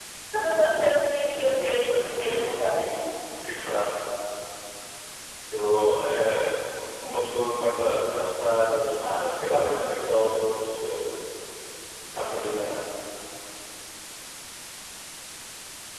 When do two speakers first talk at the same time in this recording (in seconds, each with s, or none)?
1.1 s